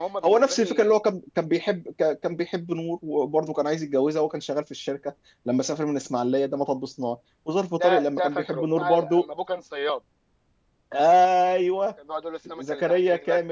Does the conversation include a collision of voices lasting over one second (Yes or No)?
Yes